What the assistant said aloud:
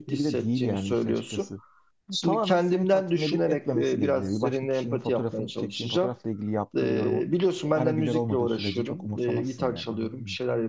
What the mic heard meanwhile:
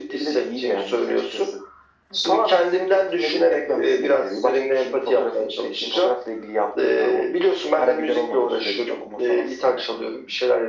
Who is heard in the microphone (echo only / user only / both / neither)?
echo only